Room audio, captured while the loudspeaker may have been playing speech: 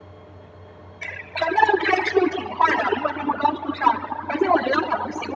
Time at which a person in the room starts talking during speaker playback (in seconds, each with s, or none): none